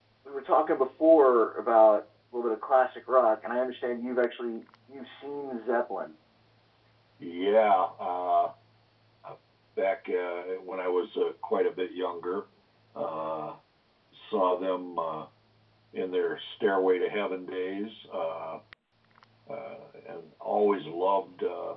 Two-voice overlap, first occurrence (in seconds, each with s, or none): none